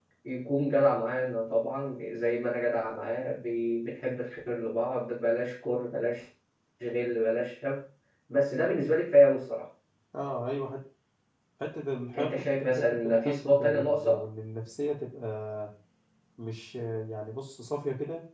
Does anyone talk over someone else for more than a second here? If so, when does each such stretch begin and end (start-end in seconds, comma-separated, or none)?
12.2-14.3